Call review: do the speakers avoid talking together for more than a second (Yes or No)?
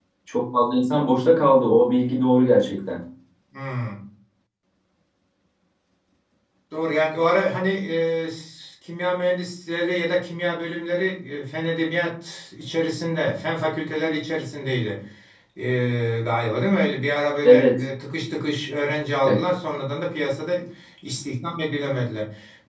Yes